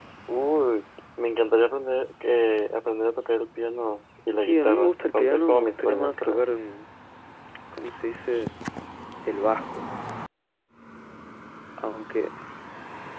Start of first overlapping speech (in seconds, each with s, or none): 4.4 s